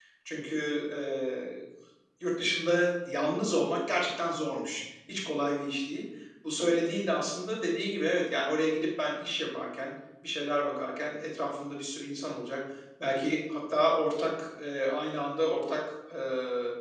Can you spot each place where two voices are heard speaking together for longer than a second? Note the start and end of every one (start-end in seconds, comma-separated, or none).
none